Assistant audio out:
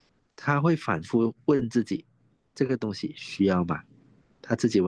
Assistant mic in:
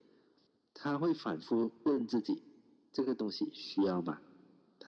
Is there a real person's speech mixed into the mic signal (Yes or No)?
No